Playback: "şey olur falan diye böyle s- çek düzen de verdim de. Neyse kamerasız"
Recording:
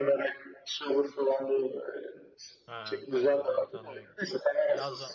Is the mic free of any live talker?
No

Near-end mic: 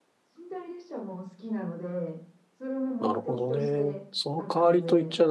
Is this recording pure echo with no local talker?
No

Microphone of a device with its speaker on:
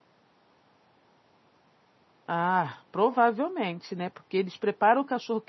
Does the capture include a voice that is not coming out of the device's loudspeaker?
Yes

